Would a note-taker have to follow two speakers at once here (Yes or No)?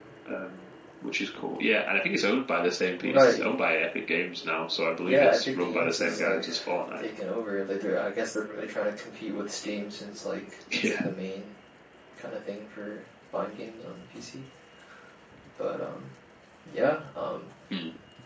Yes